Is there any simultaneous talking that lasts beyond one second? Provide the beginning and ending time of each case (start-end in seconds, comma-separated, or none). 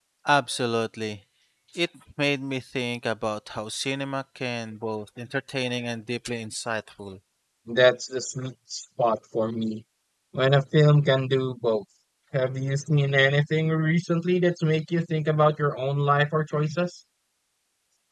none